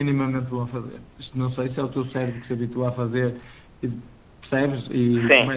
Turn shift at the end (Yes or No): No